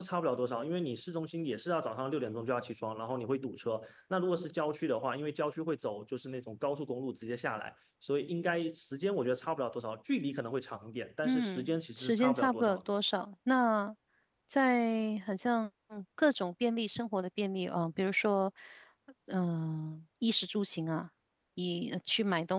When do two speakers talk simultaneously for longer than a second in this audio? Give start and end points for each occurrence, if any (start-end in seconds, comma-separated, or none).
11.2-12.9